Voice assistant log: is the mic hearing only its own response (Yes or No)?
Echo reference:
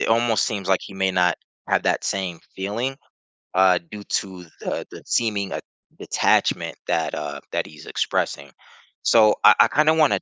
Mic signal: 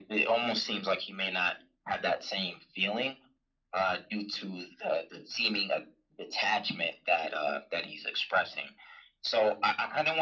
Yes